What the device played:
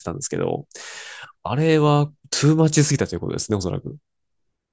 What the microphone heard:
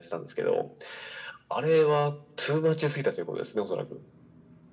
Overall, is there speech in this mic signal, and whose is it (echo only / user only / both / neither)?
echo only